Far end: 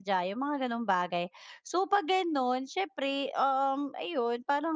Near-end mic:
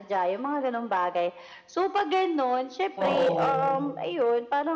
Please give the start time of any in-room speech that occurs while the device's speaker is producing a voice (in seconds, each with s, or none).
3.0 s